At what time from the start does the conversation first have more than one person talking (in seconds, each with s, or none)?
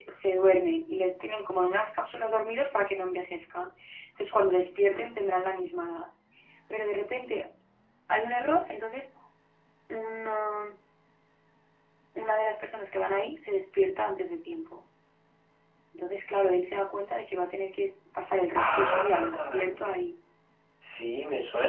18.6 s